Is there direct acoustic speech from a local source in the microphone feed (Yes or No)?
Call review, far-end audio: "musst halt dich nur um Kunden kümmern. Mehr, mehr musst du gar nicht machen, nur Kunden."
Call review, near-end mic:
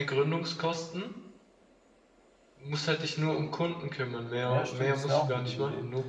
Yes